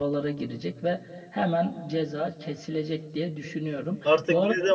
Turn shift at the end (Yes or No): Yes